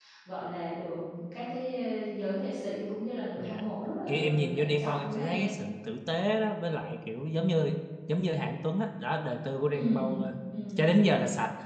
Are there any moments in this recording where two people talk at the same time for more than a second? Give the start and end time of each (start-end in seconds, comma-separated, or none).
4.1-5.5